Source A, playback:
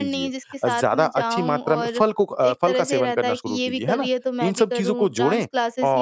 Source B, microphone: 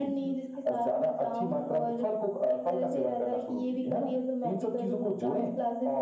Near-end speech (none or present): none